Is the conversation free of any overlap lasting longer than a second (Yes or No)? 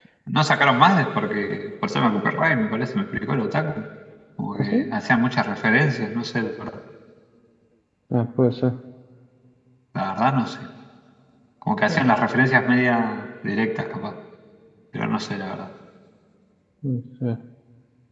Yes